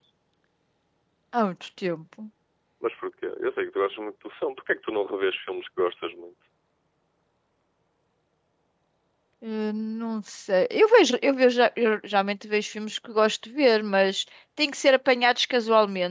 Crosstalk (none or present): none